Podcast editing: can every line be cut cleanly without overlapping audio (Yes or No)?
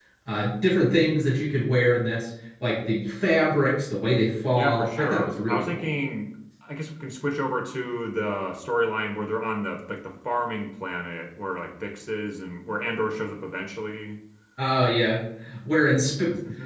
No